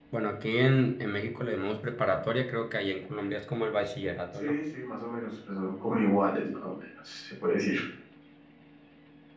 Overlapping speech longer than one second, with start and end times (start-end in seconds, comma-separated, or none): none